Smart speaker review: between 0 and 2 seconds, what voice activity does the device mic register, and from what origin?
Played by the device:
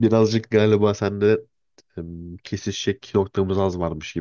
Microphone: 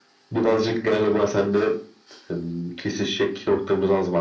echo only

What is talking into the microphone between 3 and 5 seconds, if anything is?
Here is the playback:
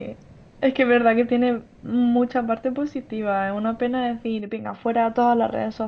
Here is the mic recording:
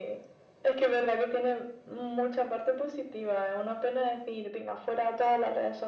echo only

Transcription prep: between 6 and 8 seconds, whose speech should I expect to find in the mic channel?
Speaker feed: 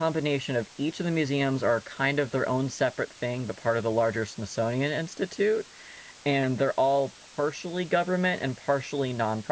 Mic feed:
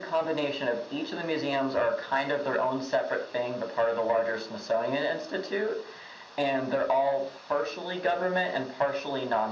echo only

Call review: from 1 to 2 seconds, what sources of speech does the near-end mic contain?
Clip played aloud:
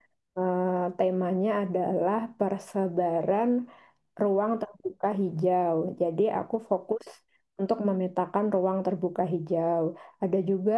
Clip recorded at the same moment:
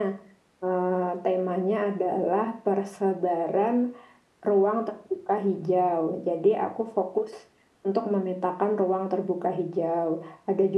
echo only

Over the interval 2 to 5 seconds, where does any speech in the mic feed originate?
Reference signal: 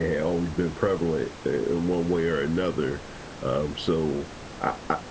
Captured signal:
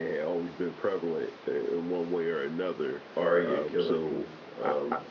both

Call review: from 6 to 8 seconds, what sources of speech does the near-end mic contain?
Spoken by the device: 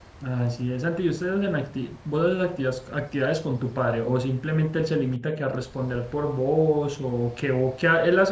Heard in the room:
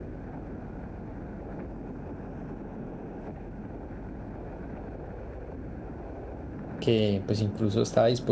user only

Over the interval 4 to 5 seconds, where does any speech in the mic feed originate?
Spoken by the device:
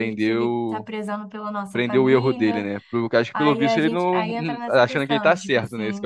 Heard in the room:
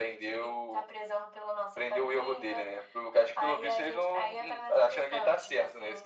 echo only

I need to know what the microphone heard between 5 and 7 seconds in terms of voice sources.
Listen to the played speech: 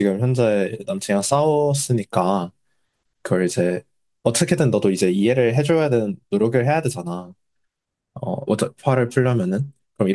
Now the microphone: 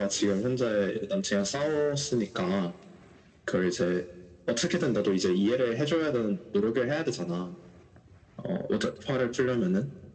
echo only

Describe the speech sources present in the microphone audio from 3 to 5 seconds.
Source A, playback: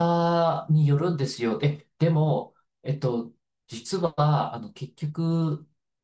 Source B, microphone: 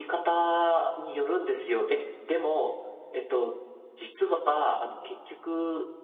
echo only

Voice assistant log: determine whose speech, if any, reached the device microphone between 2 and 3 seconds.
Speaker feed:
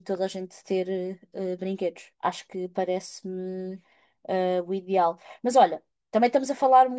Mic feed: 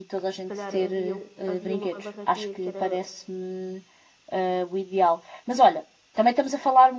both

